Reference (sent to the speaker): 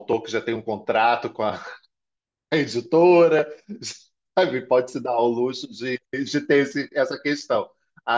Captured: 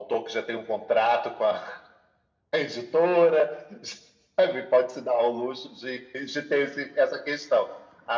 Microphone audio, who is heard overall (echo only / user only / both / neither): echo only